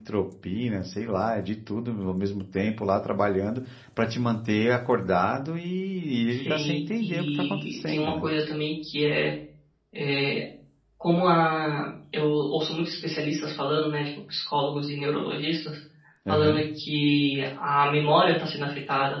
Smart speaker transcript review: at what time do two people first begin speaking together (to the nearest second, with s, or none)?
6 s